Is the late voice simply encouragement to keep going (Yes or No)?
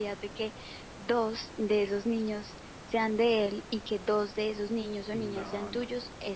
No